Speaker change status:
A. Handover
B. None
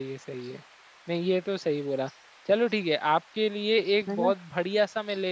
B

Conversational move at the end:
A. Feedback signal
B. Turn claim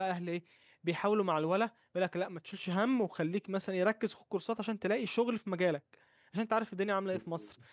A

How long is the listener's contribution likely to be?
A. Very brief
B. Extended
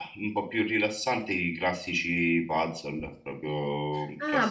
B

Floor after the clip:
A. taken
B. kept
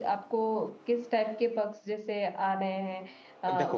B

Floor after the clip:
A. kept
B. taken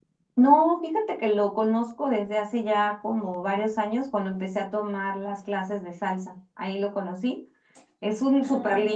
A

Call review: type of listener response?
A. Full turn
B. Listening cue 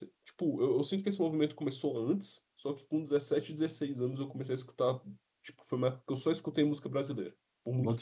A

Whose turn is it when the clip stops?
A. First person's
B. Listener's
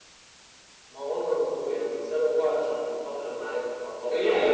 B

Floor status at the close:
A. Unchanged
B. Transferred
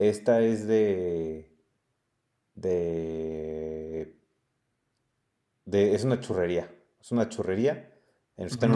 A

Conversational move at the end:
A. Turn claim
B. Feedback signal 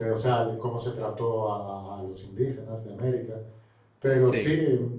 B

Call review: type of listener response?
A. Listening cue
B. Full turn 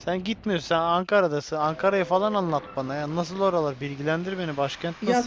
B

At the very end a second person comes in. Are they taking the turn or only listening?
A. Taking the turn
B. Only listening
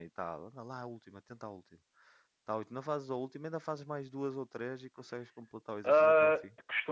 A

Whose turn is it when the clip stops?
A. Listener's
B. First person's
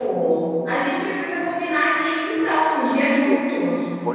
A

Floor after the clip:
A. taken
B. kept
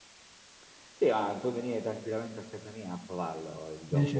B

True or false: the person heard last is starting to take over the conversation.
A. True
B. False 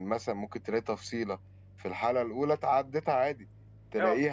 B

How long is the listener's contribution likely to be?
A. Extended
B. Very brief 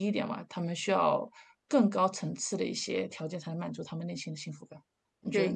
A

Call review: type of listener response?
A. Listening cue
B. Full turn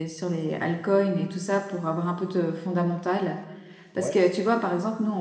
A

